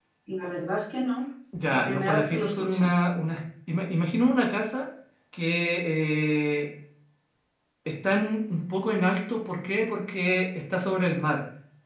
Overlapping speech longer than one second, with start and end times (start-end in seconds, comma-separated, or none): 1.7-2.9